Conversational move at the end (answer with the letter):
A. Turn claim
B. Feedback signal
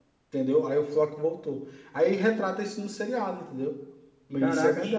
A